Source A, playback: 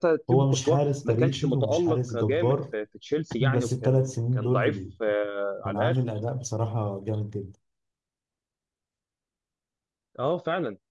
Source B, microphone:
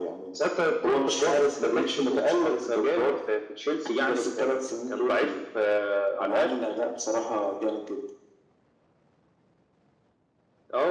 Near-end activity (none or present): none